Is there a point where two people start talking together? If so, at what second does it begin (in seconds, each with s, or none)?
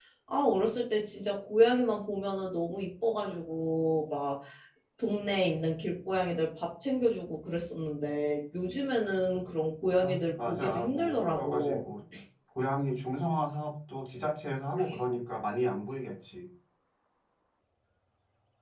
10.0 s